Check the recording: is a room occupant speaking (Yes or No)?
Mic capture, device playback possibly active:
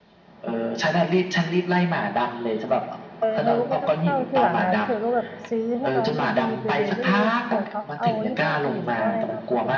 Yes